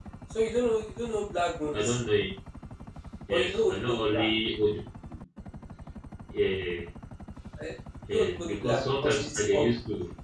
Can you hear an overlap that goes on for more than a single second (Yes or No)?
Yes